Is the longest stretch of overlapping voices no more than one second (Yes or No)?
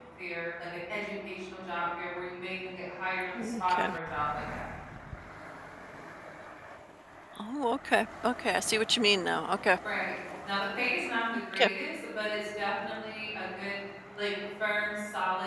Yes